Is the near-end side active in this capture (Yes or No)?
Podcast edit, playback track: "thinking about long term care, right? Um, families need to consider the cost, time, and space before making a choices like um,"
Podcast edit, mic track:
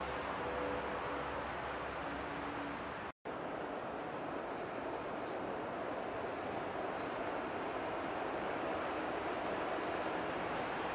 No